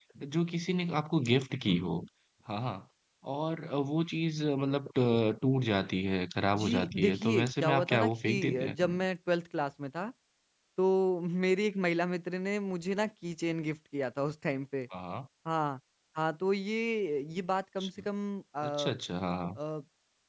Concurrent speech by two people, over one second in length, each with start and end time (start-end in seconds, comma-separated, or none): 6.5-8.8